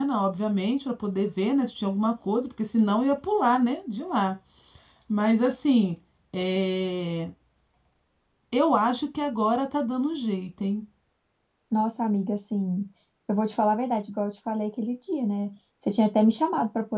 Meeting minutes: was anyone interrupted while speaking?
No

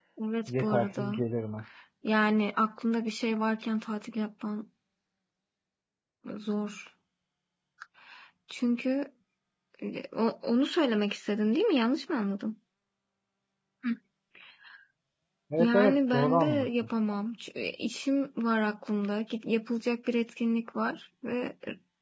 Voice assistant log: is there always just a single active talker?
No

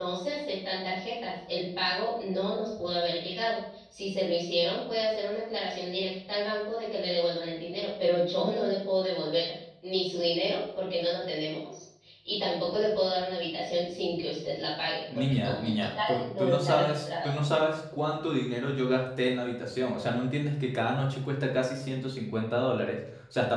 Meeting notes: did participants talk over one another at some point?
Yes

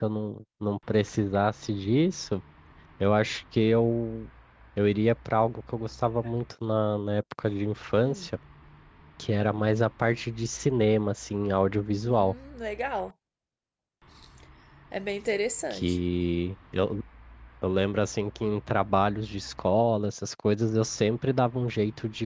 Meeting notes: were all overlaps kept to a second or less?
Yes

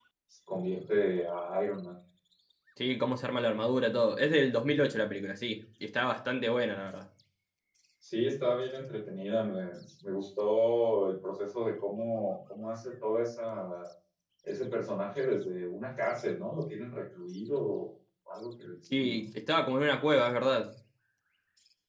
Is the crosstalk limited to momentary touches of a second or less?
Yes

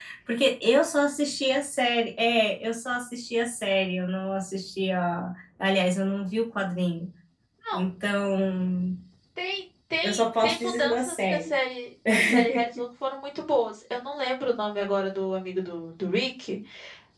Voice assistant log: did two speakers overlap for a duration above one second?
Yes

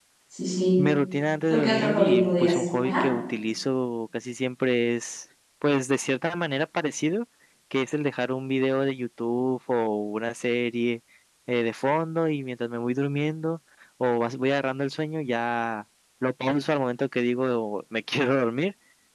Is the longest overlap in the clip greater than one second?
Yes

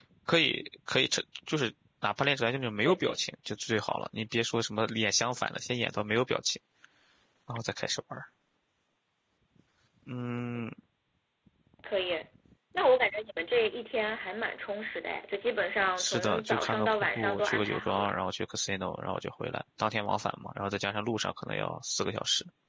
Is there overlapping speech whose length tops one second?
Yes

